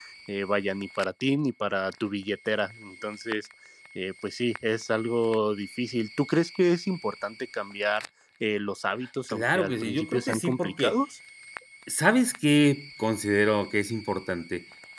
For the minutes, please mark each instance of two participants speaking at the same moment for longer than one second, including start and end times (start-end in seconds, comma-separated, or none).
9.3-11.0